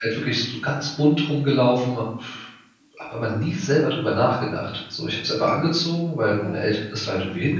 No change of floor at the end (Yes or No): Yes